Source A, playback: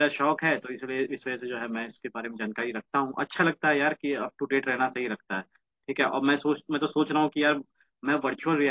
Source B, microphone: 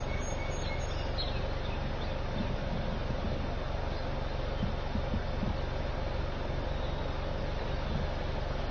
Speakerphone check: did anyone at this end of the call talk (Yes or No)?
No